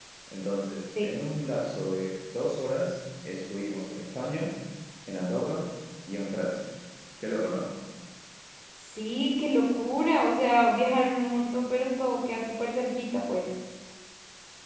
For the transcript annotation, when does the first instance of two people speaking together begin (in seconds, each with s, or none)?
none